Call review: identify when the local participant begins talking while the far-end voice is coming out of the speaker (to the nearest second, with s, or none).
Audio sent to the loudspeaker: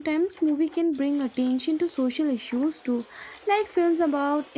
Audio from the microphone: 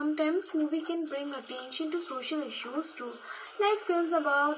none